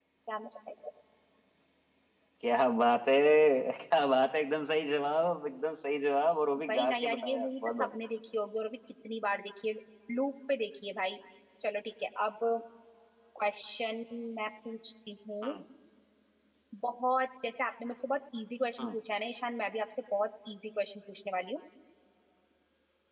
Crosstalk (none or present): present